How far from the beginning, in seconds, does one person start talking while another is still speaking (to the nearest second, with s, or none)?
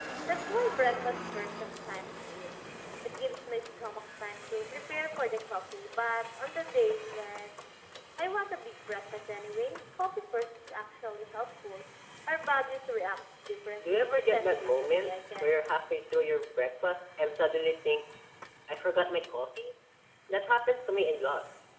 14 s